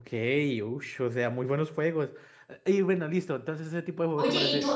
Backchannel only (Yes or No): No